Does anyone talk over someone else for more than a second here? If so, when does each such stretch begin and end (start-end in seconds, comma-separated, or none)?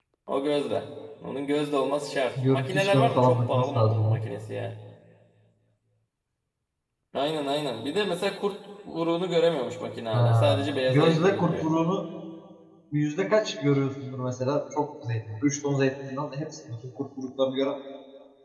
2.5-4.2, 10.1-11.7